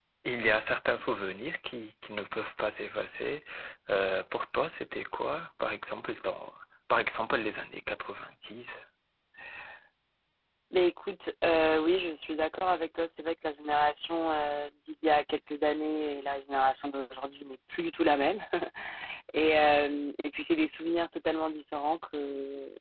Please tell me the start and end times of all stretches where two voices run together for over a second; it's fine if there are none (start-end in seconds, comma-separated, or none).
none